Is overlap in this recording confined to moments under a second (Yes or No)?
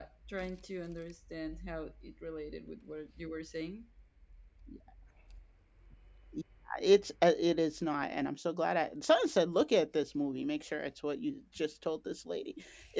Yes